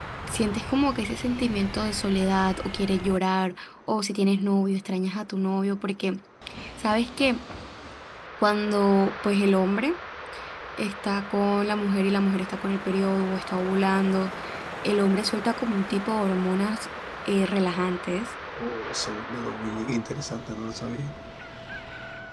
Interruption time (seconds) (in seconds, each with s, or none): none